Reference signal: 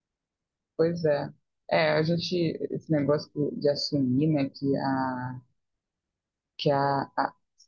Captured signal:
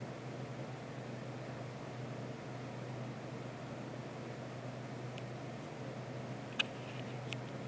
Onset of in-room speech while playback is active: none

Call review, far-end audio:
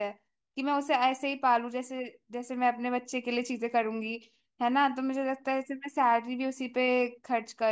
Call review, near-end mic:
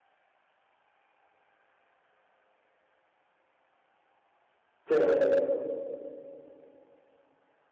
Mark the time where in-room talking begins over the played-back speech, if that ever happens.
4.9 s

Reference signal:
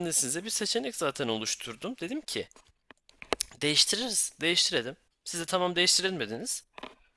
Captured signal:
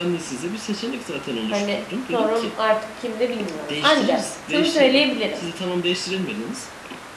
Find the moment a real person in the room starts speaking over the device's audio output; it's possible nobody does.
1.4 s

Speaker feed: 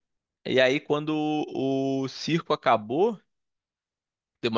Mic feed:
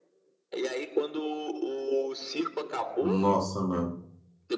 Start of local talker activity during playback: 3.0 s

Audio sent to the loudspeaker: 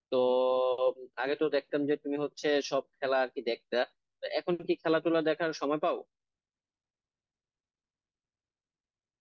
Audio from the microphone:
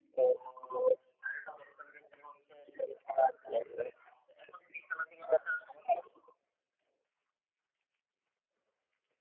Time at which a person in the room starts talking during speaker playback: none

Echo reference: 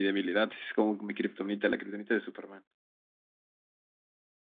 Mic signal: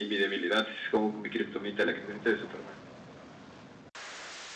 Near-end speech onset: none

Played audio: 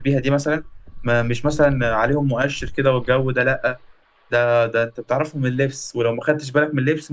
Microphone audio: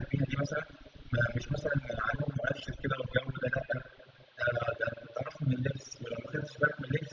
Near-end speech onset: none

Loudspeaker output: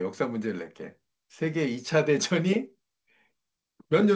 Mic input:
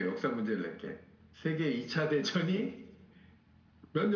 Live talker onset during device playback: none

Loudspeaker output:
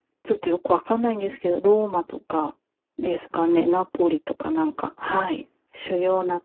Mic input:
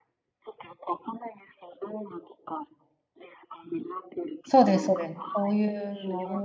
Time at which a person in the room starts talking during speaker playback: 4.4 s

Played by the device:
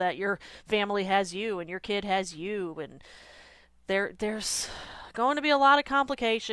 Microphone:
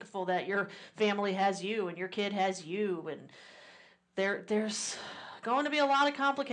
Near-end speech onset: none

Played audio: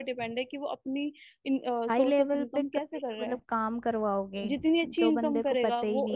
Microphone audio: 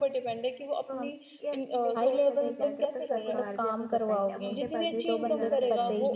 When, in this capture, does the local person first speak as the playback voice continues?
0.9 s

